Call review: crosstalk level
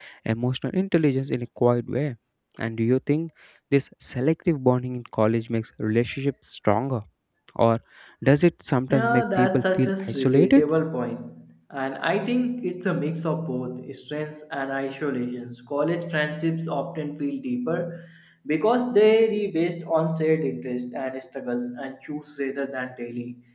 present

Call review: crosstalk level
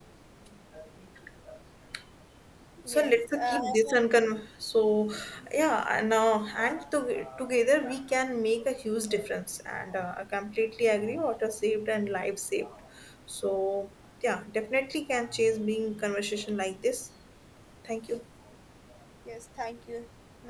present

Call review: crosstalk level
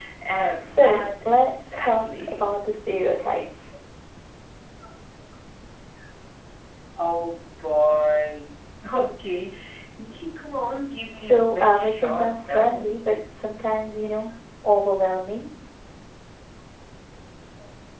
present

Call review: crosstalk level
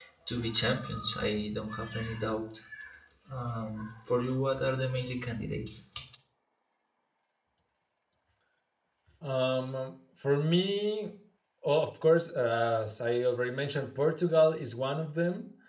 none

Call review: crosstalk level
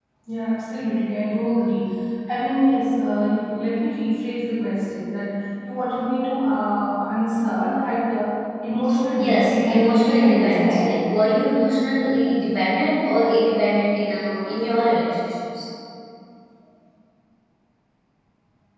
present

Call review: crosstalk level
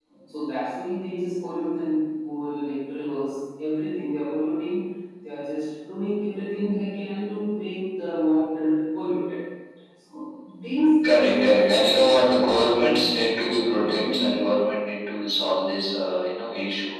present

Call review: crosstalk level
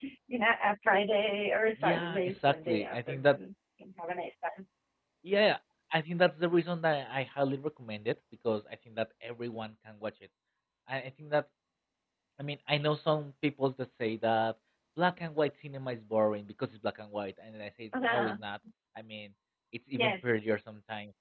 present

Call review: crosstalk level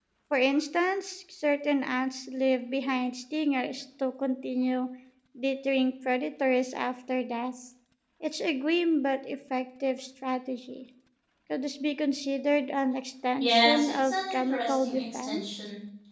present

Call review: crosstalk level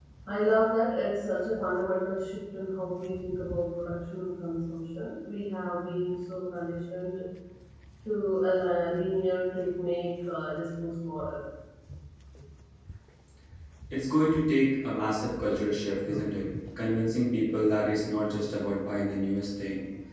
none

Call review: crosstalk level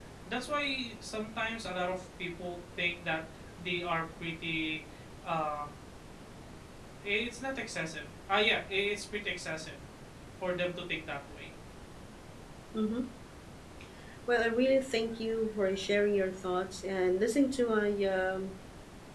none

